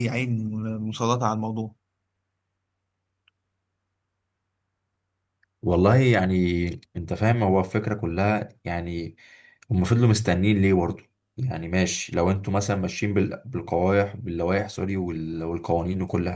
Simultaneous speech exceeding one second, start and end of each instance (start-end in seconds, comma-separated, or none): none